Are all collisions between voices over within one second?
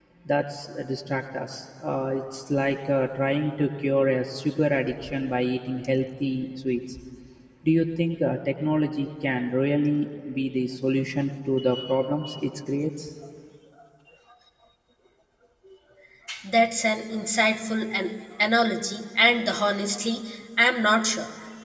Yes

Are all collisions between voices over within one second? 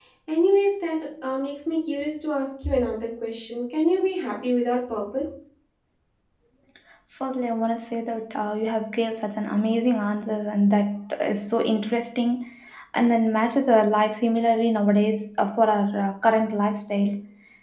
Yes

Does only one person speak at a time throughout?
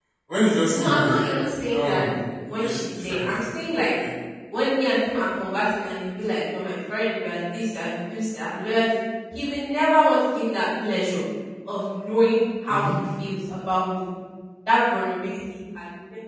No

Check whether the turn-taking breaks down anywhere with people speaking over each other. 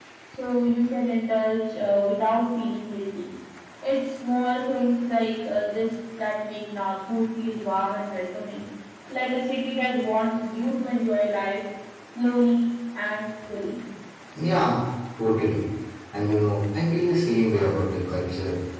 No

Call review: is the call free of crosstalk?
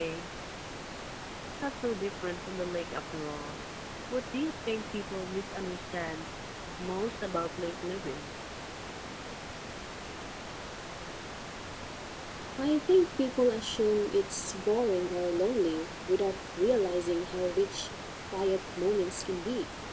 Yes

